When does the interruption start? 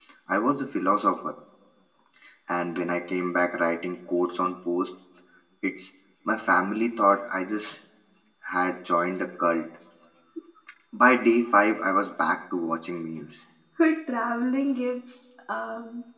none

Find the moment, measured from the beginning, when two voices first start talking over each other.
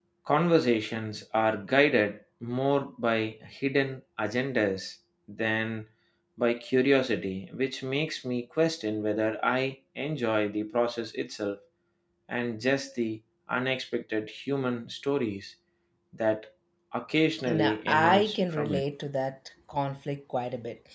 17.5 s

